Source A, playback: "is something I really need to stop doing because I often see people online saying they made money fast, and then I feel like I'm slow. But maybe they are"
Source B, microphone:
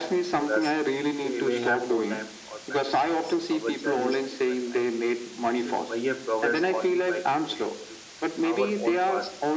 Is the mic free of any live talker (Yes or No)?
No